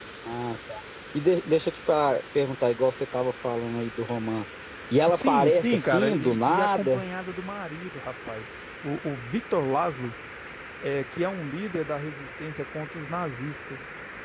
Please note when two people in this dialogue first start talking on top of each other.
5 s

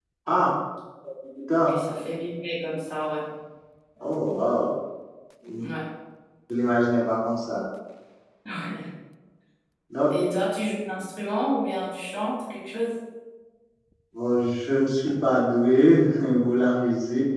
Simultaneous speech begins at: none

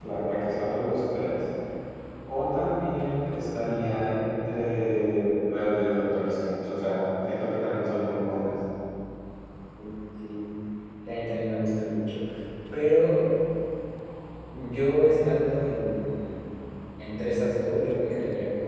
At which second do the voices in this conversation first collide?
none

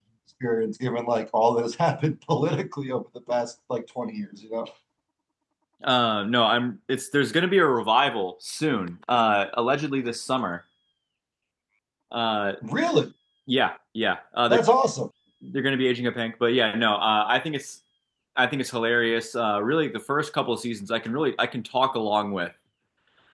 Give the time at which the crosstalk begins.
none

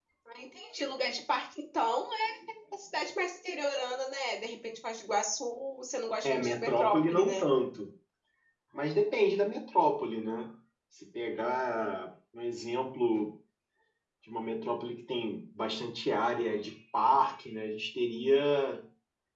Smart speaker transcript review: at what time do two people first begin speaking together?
6 s

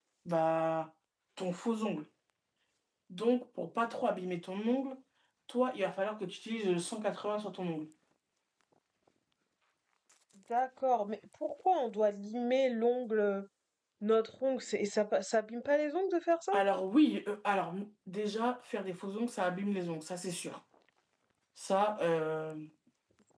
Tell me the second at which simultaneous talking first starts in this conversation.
none

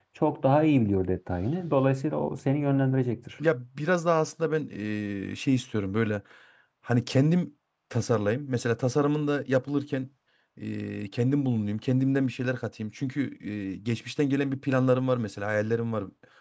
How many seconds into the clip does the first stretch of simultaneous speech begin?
none

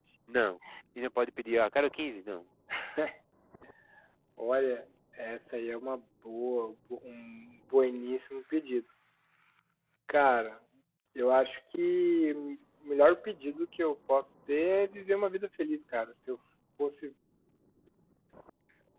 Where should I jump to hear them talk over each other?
none

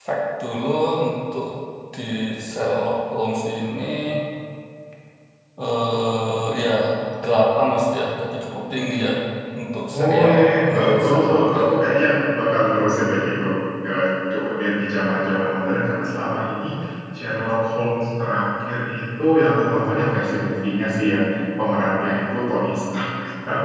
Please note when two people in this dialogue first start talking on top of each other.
10 s

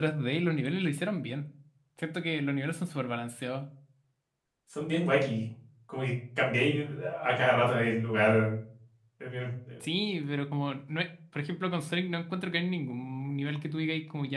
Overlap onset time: none

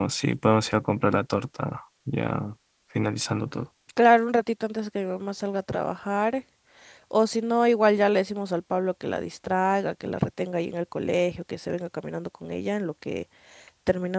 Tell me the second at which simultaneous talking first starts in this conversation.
none

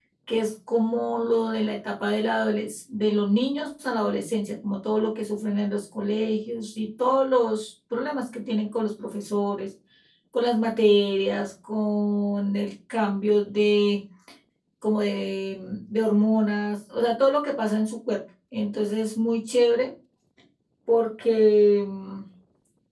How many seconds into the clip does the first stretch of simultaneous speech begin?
none

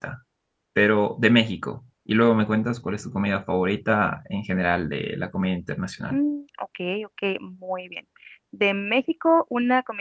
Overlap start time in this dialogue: none

